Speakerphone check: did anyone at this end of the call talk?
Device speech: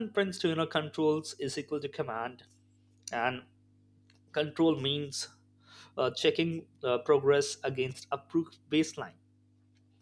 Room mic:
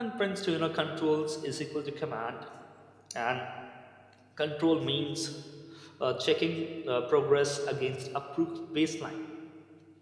No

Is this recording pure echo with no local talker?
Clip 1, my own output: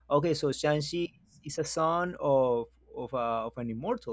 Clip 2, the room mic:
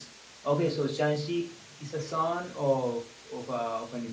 Yes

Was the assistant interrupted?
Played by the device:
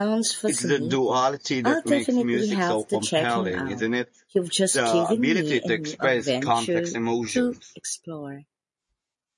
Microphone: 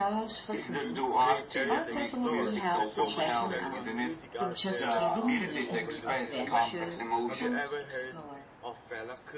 Yes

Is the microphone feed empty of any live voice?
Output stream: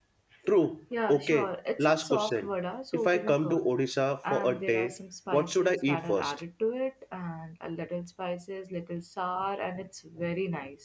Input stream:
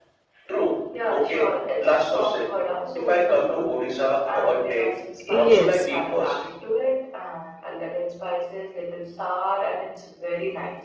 No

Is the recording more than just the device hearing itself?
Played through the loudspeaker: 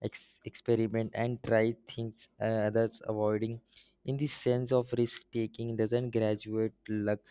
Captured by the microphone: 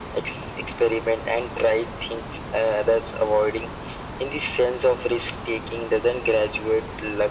No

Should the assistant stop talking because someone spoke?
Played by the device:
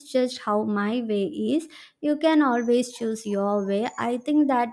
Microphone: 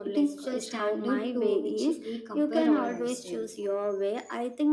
Yes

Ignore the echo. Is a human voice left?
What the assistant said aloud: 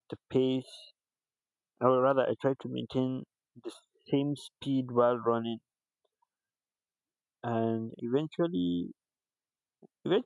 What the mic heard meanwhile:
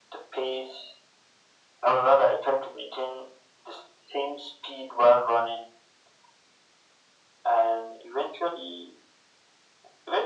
No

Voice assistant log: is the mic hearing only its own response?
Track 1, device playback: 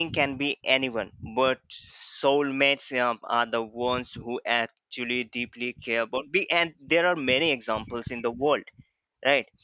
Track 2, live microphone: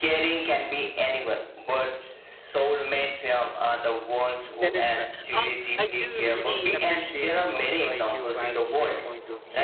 No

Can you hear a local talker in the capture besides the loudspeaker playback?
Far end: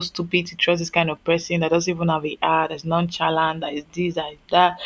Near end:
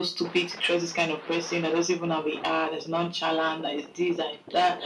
No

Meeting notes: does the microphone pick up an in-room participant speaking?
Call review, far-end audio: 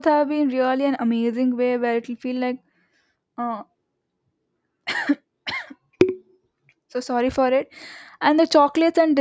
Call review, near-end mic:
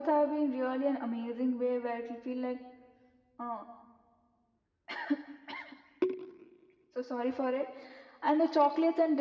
No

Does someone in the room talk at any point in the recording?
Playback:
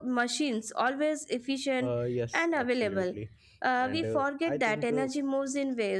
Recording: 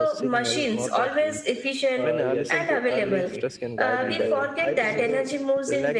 Yes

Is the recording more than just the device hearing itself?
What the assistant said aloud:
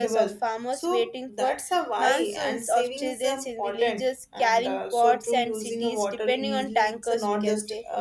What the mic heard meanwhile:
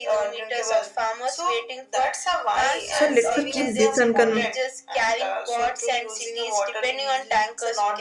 Yes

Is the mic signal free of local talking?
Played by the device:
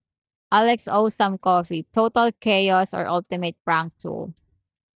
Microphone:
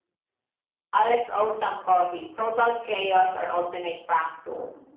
Yes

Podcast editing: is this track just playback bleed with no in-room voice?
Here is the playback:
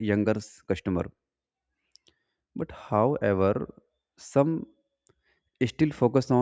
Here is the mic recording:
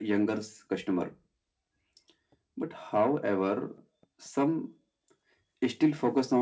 Yes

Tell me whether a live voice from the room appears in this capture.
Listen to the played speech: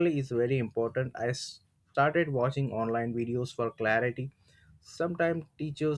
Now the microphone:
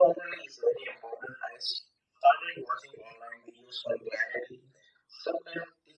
No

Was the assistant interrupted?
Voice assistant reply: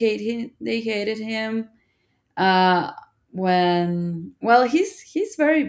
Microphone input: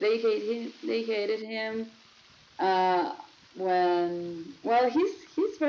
No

